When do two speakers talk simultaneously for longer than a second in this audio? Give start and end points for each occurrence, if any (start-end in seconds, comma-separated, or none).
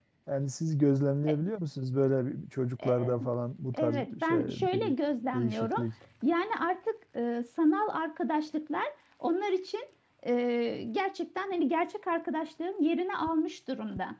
3.7-4.9